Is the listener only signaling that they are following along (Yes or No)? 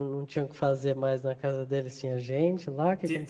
No